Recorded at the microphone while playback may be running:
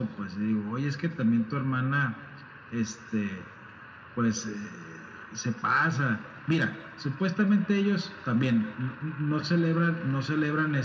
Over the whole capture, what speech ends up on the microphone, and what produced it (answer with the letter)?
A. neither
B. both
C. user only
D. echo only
D